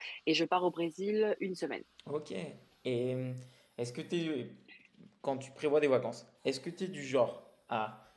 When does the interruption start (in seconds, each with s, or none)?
none